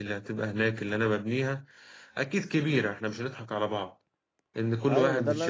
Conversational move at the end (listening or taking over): taking over